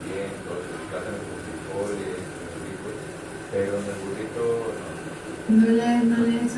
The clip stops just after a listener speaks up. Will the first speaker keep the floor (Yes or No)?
No